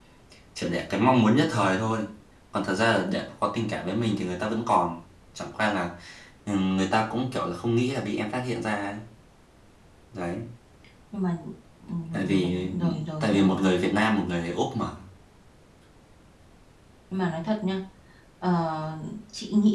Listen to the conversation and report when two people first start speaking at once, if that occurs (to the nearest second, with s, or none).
12 s